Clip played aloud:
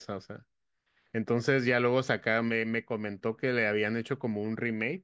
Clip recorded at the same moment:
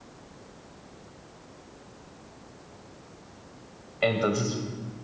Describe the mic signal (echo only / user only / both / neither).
user only